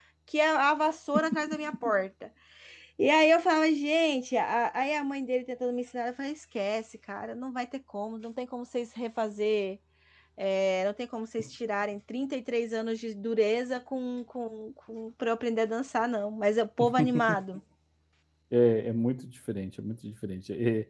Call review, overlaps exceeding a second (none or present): none